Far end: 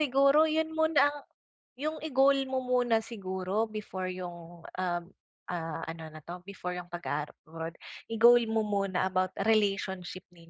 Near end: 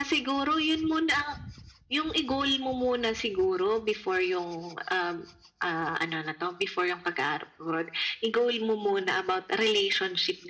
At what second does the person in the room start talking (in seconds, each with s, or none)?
none